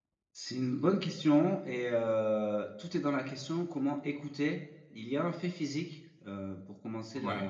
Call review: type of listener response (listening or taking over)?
listening